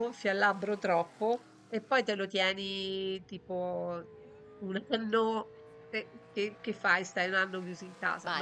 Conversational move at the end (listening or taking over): taking over